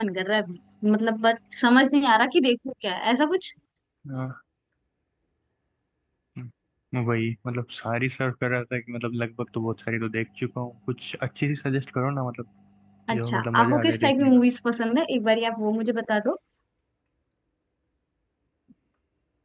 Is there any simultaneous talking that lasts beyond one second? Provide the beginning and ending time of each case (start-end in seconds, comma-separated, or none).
13.2-14.4